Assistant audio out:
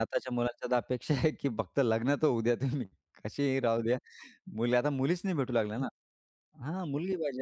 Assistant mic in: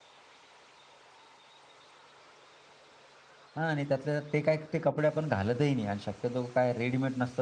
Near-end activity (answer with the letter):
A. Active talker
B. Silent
A